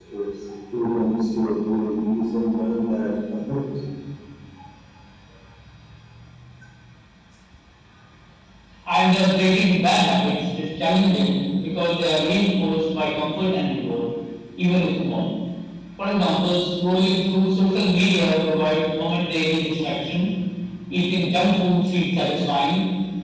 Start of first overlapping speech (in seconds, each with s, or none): none